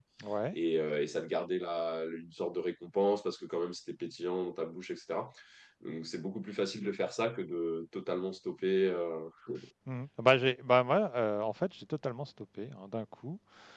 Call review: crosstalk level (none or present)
none